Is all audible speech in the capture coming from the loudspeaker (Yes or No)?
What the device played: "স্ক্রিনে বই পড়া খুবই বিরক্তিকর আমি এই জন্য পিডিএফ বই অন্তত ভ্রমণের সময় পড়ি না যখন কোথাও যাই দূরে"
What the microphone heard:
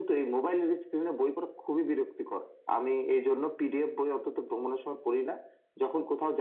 Yes